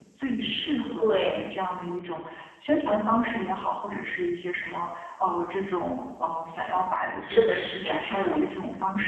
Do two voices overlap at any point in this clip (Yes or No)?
Yes